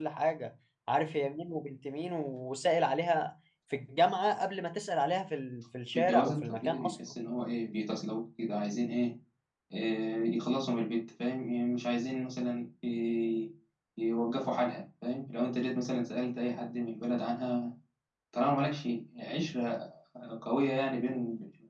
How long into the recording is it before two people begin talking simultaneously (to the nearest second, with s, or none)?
6 s